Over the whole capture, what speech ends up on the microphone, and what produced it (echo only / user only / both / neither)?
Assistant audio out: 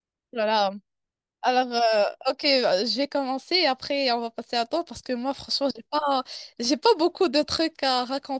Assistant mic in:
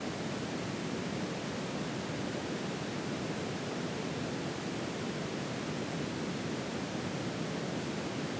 neither